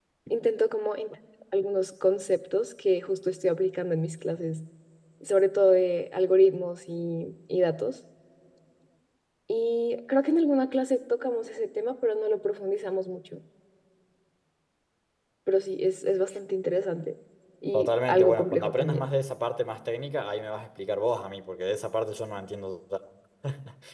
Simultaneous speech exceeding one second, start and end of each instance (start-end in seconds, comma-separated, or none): 17.7-19.1